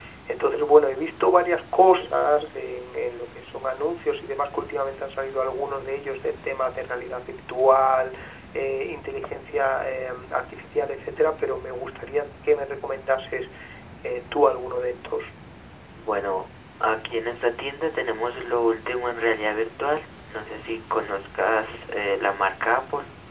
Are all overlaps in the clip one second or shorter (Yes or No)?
Yes